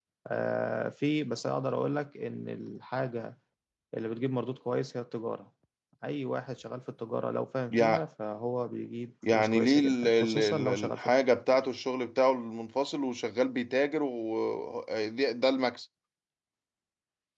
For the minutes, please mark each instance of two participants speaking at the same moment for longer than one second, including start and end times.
9.3-11.1

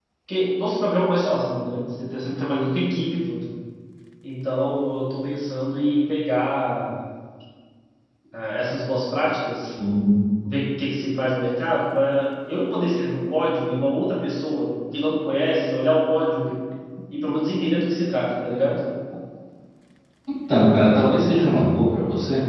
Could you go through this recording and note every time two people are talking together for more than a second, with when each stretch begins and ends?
none

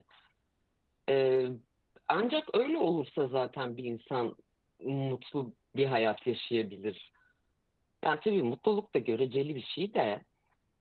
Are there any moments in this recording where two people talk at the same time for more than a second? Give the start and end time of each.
none

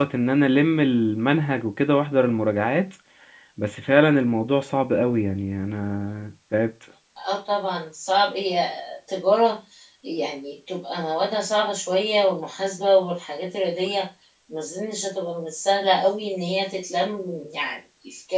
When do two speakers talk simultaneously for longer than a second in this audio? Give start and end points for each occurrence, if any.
none

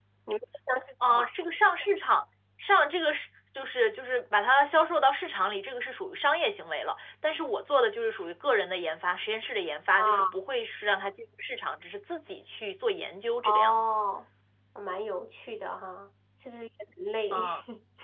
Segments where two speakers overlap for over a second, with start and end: none

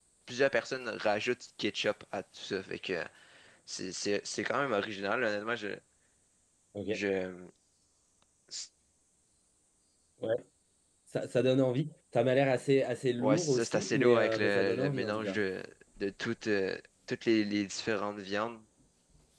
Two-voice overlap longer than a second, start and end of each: 13.2-15.4

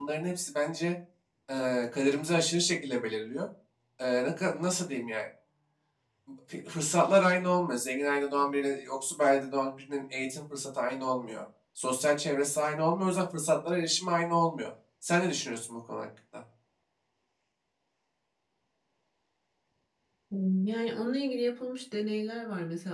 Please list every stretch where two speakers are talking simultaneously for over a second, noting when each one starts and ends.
none

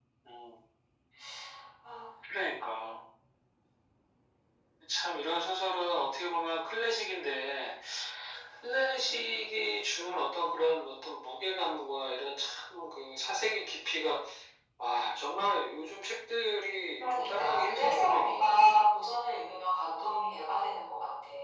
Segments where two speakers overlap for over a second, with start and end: 17.0-18.7

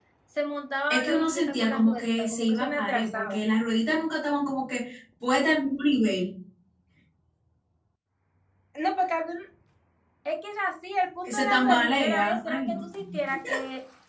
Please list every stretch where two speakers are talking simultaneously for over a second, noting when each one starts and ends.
0.9-3.4, 11.2-12.8

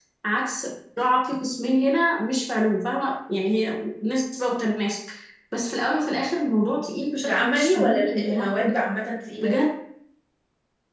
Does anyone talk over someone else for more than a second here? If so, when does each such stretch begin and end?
7.2-8.7

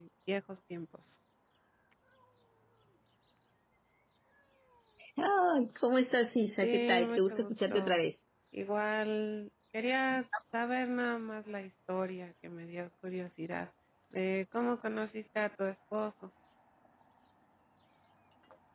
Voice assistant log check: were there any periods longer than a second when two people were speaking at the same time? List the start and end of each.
6.6-8.0

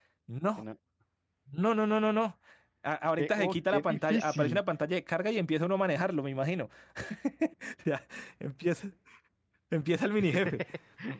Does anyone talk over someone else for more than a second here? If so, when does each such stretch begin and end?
3.2-4.6

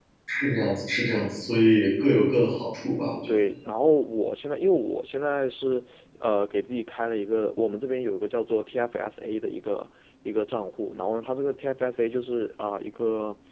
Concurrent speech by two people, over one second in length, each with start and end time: none

